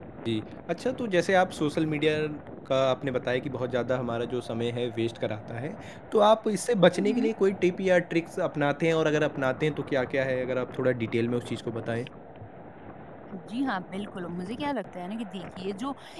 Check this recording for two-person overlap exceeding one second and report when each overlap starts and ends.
none

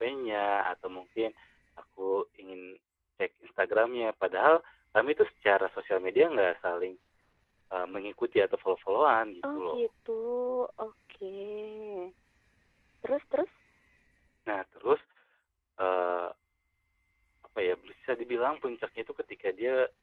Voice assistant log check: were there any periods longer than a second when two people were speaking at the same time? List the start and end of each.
none

